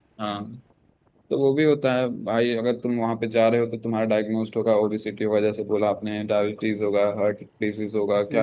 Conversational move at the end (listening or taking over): listening